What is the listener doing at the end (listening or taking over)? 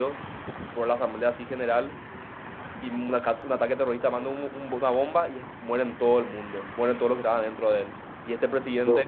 listening